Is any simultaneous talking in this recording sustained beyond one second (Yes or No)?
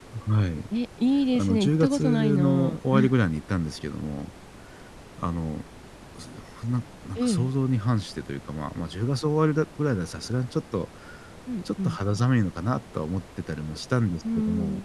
Yes